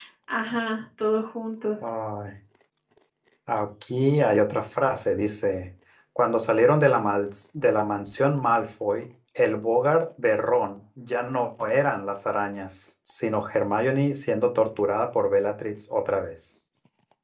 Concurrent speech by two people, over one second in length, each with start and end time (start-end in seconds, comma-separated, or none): none